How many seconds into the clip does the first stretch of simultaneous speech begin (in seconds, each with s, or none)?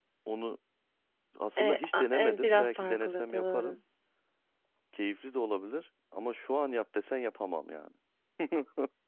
1.6 s